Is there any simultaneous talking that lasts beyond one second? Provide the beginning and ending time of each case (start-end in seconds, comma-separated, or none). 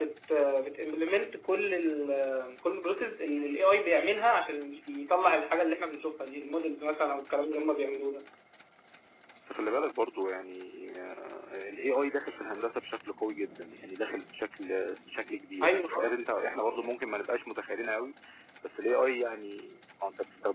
none